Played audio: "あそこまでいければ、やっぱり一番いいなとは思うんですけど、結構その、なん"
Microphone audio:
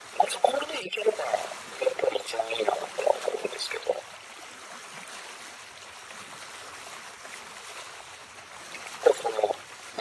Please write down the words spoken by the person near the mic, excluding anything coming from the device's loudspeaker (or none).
none